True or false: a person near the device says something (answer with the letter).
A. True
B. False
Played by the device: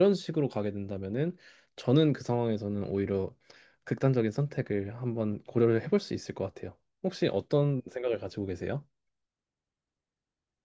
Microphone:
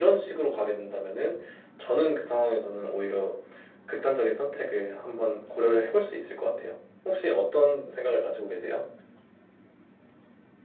B